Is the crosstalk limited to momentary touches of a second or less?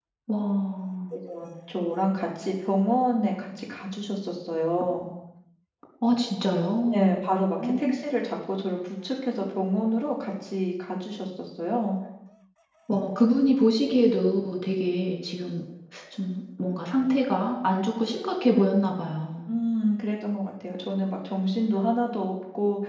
Yes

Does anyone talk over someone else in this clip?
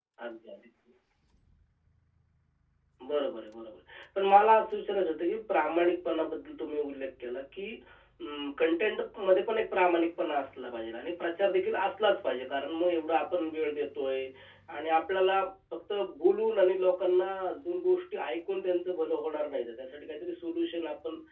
No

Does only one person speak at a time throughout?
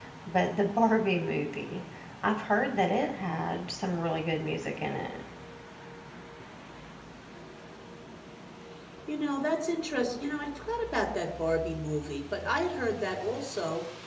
Yes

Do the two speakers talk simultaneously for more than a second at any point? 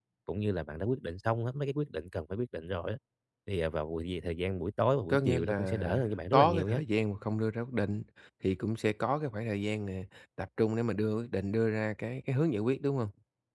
Yes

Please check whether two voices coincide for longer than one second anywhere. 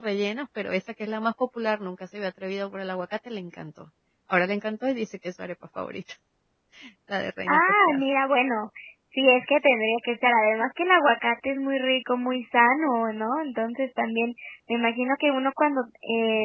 No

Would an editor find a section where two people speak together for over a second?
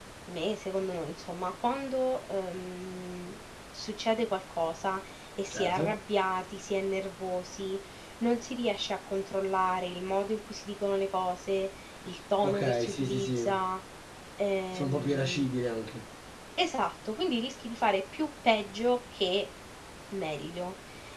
Yes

